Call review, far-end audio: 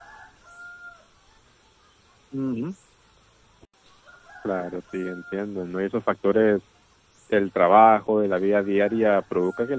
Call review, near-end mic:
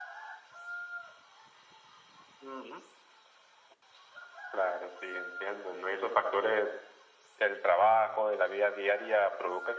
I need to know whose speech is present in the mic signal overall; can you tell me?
echo only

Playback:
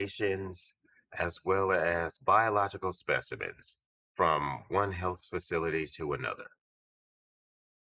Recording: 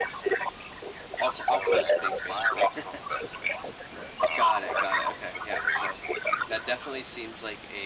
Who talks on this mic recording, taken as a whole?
both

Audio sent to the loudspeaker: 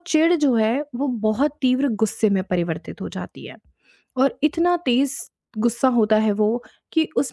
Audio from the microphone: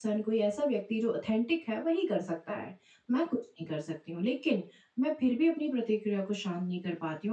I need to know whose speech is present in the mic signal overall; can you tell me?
user only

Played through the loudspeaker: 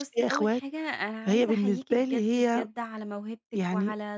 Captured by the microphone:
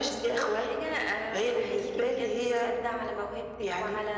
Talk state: echo only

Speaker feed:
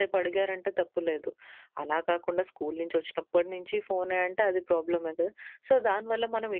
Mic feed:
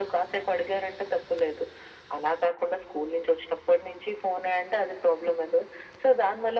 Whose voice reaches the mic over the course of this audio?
echo only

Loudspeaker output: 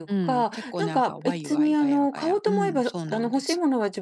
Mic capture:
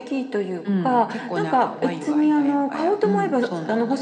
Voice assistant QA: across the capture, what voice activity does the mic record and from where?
echo only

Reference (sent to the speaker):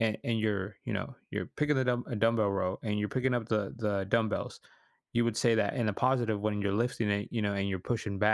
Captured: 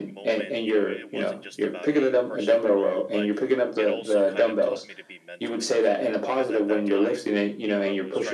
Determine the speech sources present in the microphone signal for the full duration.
both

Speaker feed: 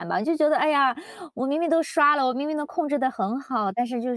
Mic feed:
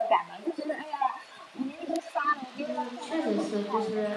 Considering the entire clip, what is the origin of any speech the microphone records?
both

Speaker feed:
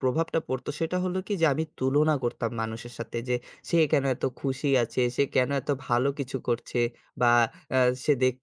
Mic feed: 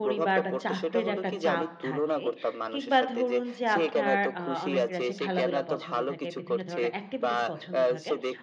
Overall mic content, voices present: both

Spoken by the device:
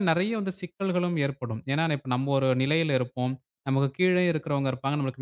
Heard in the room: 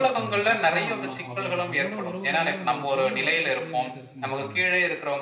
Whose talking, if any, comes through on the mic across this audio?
both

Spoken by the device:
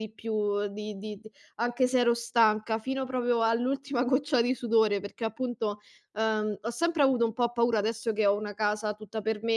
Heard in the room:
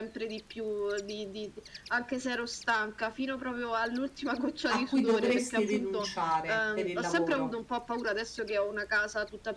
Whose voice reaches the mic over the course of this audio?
both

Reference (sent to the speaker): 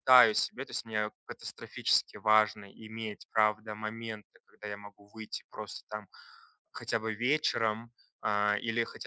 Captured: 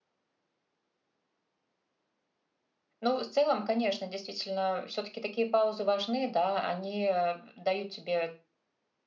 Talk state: user only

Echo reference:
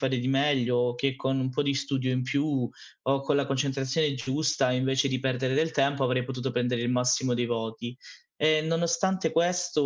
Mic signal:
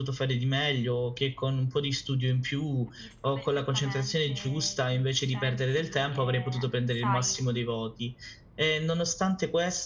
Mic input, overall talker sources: both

